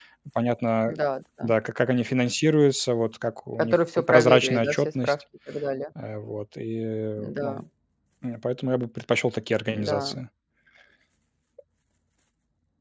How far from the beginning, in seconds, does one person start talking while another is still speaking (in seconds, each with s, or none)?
3.6 s